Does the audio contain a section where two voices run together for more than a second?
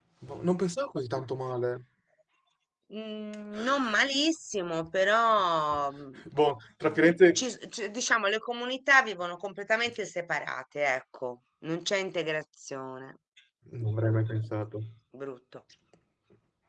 No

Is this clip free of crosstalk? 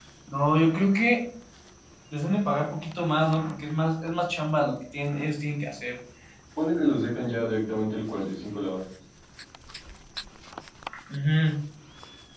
Yes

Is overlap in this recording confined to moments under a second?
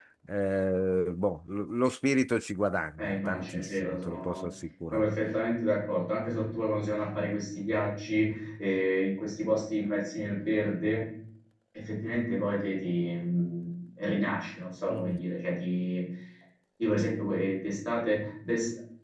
No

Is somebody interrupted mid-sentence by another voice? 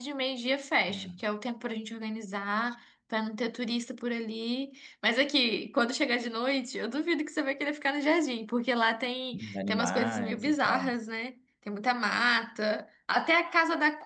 Yes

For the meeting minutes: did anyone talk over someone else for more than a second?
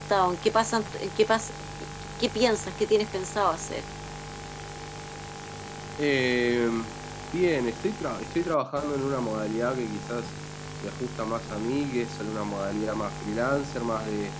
No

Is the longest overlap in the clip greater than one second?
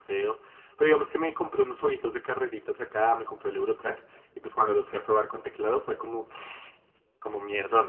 No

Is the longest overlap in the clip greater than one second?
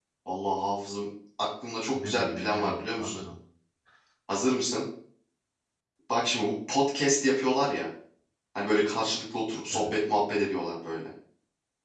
Yes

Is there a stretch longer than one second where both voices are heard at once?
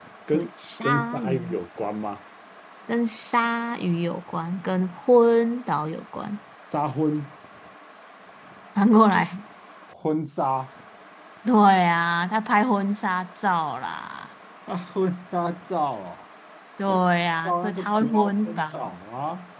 Yes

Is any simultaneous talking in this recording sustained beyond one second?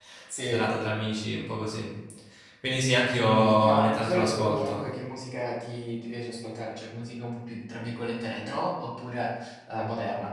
Yes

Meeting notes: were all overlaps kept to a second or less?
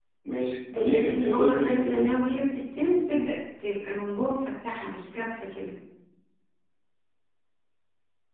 No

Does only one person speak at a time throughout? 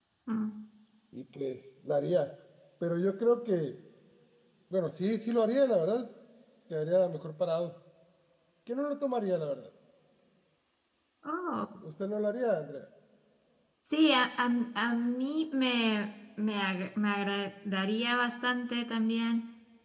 Yes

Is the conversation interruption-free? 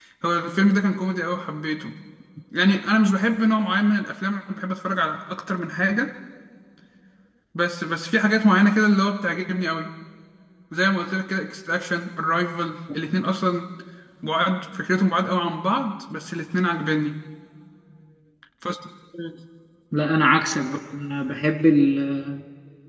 Yes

